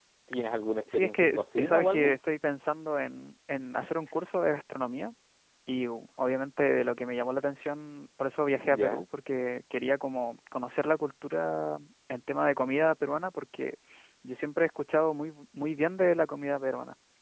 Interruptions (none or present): present